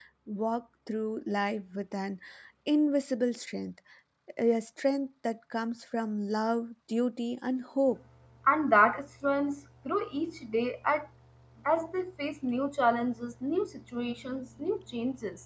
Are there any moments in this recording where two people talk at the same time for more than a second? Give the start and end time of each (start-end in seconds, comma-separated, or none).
none